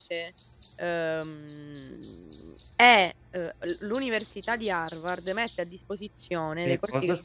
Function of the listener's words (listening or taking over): taking over